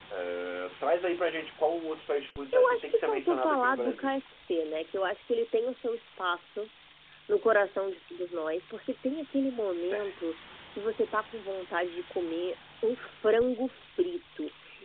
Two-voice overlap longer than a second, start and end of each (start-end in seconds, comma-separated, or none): 2.5-4.2